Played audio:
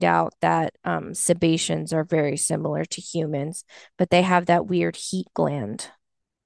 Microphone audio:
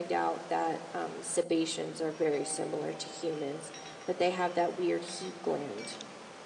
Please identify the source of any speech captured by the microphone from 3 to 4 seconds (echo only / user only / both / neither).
echo only